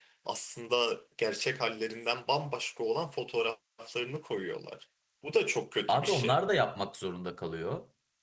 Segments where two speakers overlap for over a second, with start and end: none

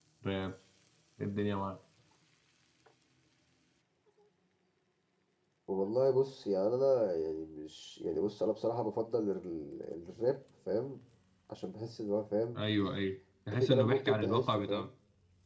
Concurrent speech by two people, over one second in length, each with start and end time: 13.5-14.9

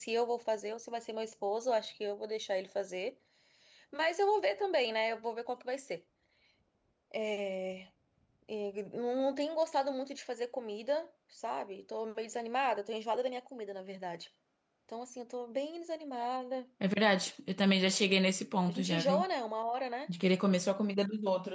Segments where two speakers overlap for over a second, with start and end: none

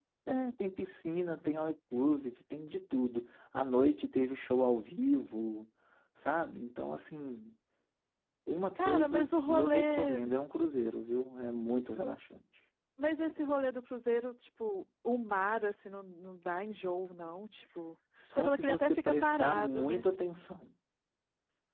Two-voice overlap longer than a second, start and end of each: 8.8-10.2, 18.4-20.0

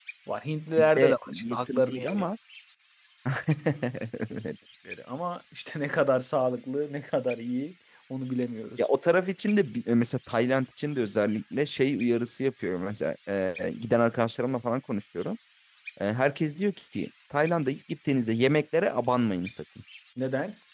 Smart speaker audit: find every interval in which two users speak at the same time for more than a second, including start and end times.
0.8-2.3

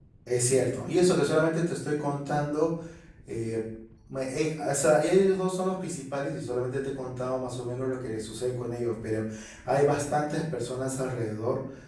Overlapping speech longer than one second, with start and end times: none

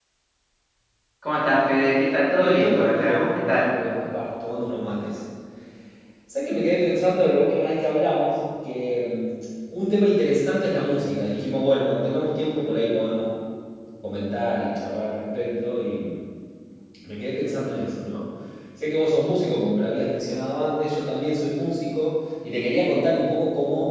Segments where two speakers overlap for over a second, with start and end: 2.4-3.7

